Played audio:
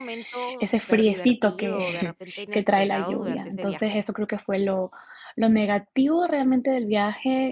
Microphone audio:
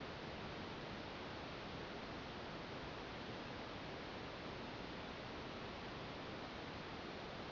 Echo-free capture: Yes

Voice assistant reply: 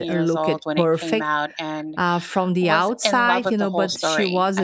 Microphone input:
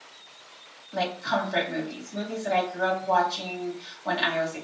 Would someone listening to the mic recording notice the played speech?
No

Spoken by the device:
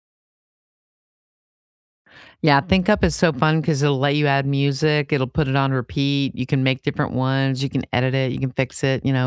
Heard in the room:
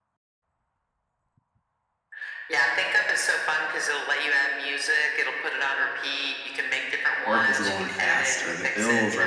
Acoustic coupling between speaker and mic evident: Yes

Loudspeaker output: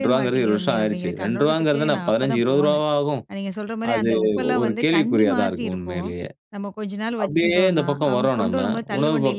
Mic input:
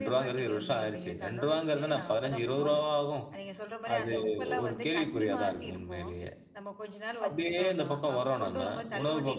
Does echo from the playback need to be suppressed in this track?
Yes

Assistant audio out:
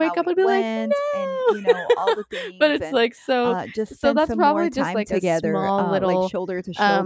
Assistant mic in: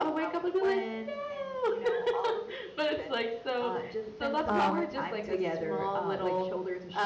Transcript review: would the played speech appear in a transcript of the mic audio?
Yes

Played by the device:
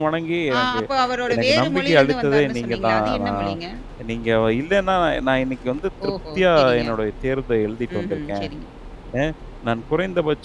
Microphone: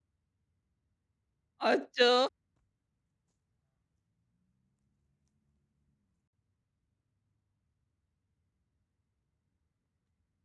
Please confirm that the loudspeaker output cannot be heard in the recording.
Yes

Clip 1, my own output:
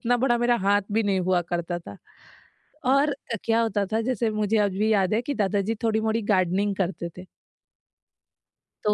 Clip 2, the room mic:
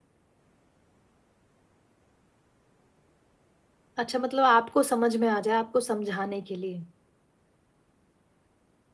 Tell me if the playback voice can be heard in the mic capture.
No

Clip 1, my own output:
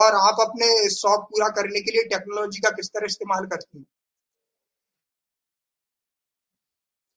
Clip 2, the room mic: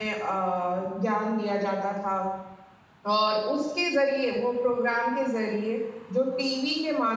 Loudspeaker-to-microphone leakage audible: No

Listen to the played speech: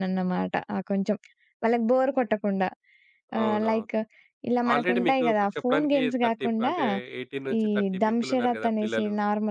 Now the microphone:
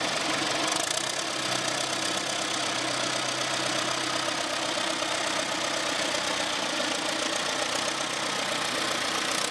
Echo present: No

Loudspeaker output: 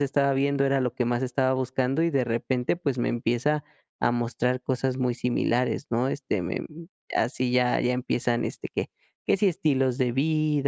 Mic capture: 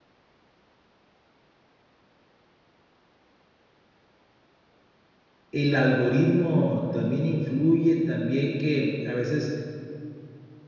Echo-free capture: Yes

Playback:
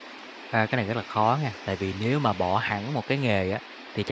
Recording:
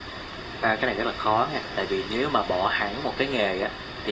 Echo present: Yes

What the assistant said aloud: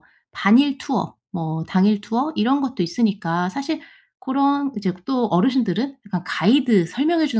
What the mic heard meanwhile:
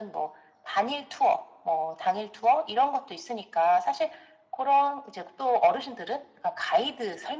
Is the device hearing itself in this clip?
Yes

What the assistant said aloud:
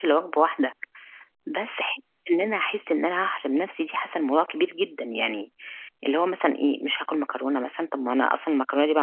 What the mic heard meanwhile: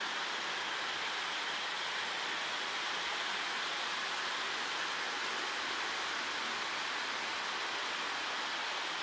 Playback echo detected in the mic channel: No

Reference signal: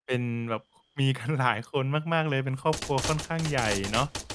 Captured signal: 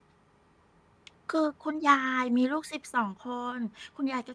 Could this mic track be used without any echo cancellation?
Yes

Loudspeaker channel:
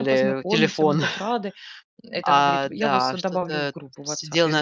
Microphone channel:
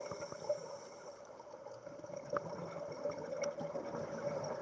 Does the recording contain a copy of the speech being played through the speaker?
No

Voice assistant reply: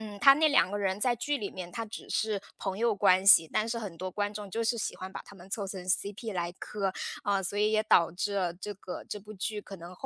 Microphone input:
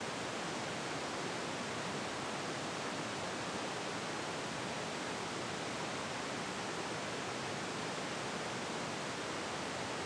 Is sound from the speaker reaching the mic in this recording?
No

